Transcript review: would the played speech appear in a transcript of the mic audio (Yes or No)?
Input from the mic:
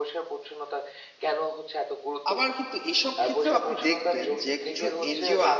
Yes